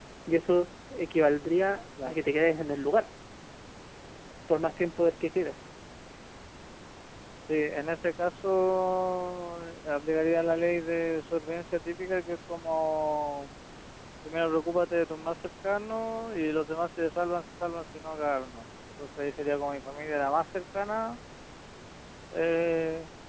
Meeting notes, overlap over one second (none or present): none